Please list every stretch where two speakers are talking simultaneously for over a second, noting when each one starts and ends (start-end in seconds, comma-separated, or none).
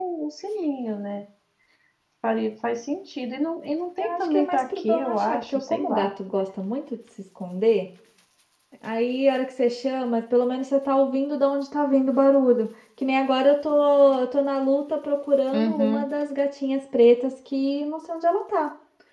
4.0-6.1